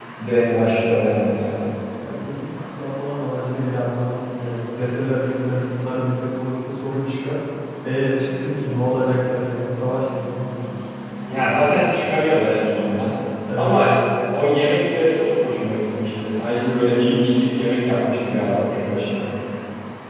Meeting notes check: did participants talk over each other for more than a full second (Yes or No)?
No